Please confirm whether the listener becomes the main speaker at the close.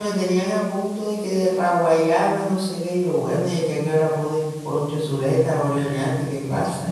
Yes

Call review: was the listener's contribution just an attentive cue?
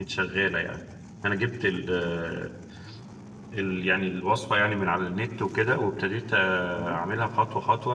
Yes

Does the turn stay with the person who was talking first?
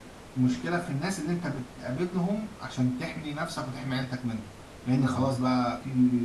Yes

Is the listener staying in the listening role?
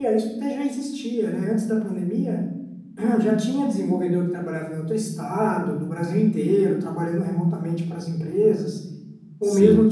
Yes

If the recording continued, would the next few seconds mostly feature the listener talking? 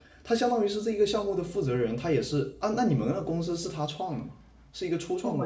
Yes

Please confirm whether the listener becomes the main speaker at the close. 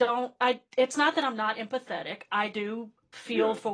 No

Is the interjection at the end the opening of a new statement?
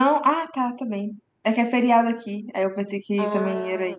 Yes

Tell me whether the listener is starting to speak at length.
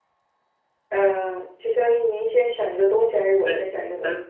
Yes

